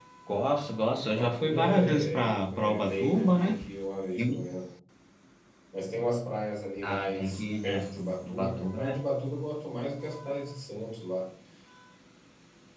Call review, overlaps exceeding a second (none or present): present